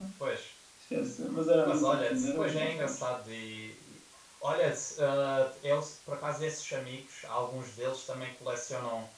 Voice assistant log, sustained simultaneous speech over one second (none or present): present